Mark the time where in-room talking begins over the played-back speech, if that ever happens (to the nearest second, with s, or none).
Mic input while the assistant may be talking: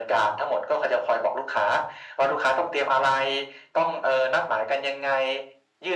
none